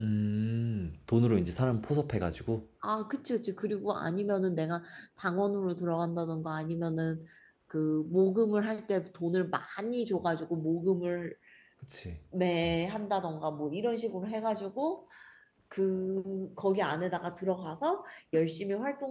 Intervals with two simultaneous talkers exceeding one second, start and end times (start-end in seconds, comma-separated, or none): none